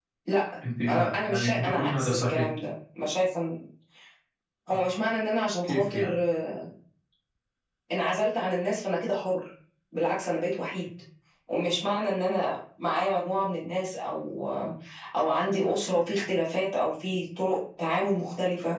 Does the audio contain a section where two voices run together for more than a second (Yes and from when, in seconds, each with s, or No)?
Yes, from 0.8 s